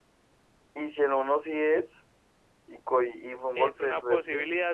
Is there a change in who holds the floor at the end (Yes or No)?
Yes